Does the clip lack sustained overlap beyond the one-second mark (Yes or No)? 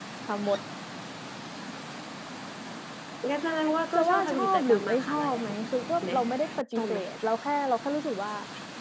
No